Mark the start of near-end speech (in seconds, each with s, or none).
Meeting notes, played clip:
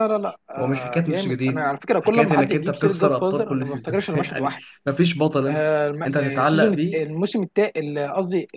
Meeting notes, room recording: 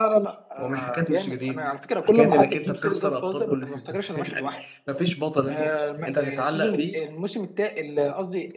none